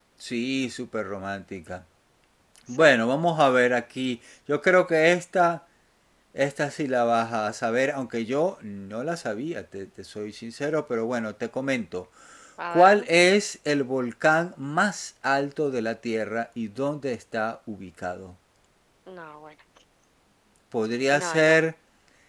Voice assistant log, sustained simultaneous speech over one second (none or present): none